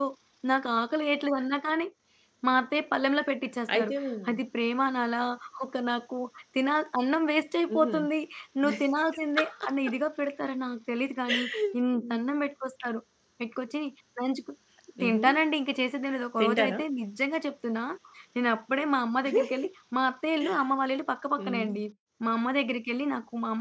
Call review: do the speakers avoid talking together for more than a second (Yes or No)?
Yes